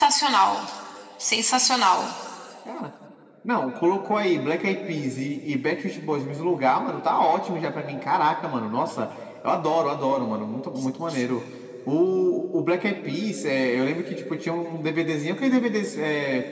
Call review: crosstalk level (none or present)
none